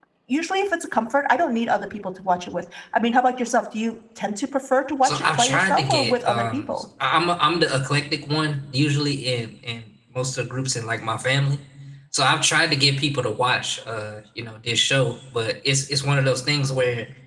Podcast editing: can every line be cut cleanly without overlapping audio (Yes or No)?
No